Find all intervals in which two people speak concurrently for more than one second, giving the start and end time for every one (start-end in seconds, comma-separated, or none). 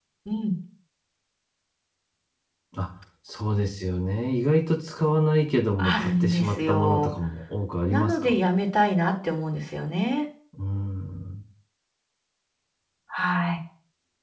5.8-7.1